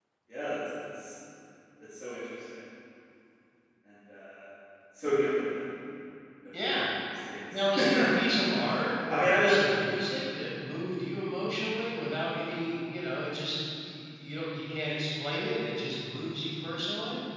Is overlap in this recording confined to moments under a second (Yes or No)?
Yes